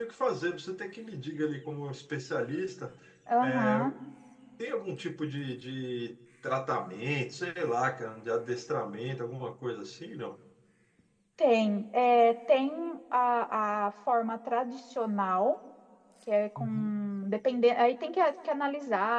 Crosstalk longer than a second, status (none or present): none